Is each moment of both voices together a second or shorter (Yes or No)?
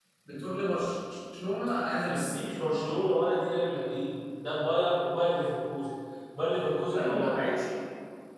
Yes